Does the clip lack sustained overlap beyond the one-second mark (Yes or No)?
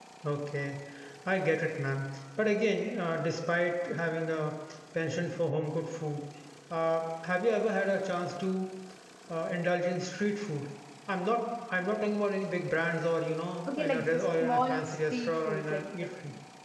No